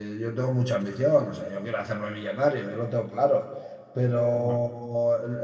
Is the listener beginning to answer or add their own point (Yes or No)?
No